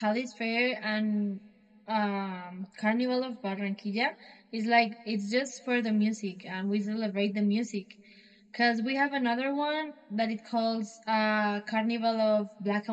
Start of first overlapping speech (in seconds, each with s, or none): none